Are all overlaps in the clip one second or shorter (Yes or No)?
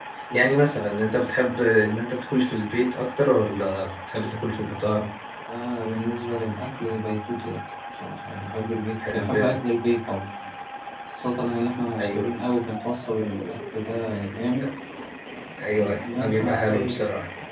No